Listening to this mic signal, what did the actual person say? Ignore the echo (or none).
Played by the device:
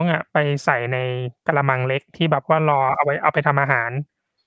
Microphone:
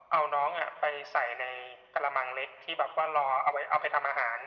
none